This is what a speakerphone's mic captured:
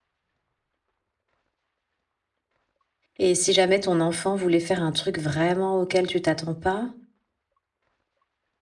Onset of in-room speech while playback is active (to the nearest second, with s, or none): 3 s